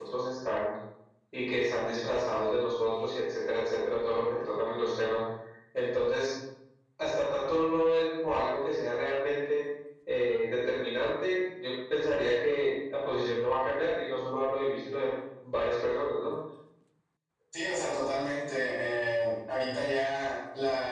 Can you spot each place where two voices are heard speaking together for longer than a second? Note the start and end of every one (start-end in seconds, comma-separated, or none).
none